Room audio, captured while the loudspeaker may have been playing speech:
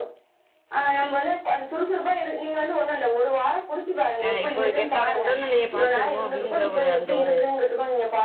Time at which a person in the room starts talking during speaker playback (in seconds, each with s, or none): 4.3 s